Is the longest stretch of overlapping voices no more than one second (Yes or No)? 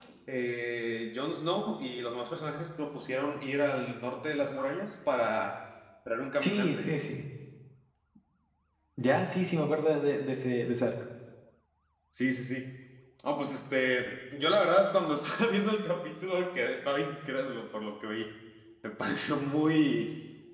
Yes